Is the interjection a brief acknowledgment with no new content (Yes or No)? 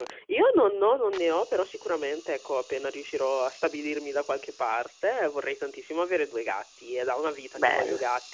Yes